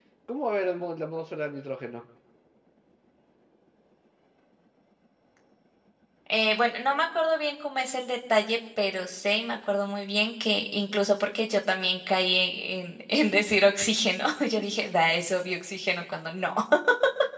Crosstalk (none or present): none